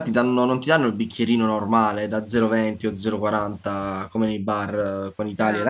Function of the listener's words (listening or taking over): listening